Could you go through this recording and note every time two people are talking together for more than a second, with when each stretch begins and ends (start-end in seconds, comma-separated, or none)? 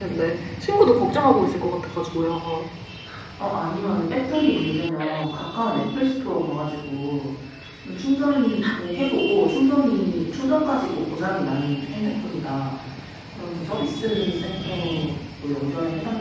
none